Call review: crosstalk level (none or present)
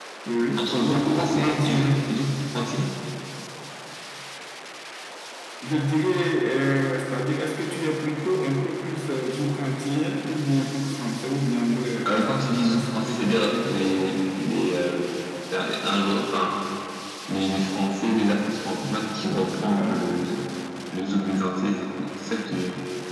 present